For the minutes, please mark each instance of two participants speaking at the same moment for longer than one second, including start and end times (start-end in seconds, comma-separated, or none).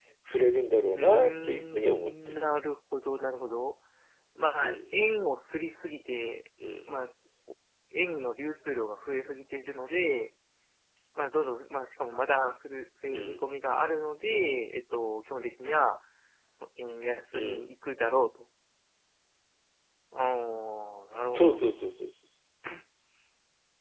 0.9-2.1